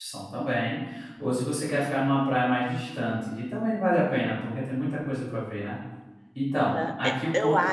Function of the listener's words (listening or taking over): taking over